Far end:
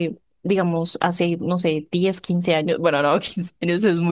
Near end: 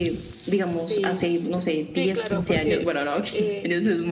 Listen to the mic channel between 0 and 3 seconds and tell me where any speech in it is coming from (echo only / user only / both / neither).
both